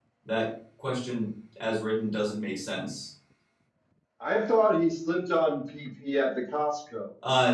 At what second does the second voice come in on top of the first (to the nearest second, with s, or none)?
none